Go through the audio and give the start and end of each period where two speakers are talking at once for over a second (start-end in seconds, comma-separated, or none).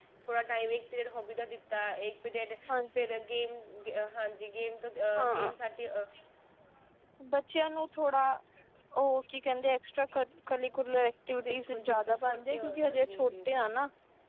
11.4-13.7